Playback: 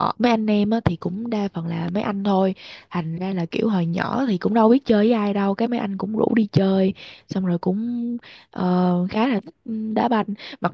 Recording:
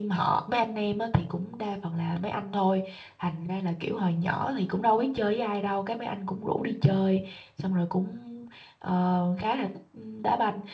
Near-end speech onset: none

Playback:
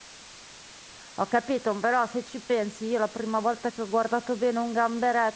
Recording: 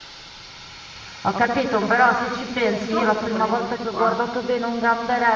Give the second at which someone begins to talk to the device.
2.8 s

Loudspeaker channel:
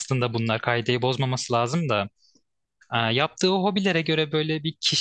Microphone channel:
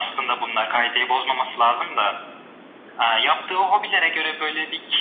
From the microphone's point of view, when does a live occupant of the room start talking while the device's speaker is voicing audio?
none

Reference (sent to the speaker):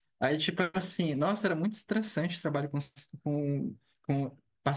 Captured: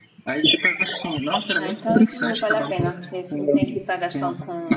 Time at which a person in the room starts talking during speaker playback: 1.6 s

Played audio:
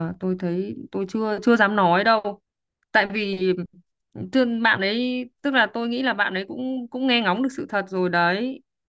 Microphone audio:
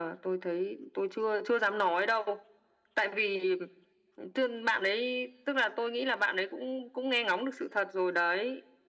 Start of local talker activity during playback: none

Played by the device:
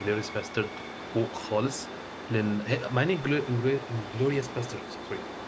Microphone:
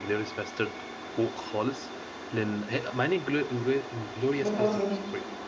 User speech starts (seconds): 4.4 s

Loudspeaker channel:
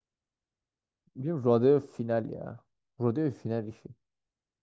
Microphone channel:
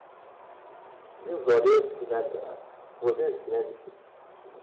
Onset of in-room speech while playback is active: none

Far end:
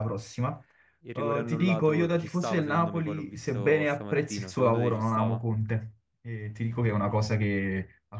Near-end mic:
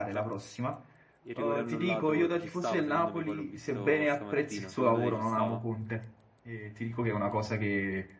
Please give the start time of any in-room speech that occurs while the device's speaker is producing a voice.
none

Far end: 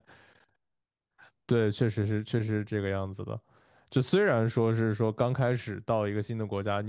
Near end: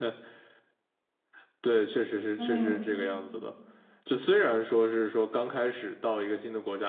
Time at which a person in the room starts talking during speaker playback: 2.4 s

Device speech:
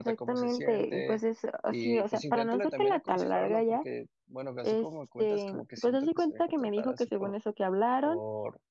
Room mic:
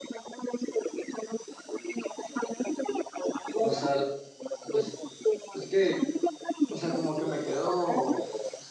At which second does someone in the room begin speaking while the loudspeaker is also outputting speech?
3.6 s

